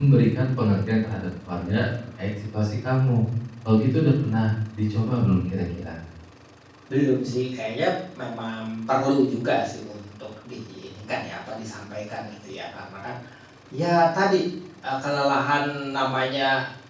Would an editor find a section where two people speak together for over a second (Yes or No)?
No